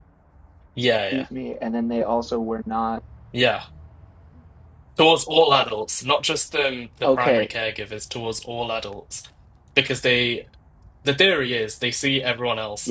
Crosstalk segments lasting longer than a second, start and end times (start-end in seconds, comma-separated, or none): none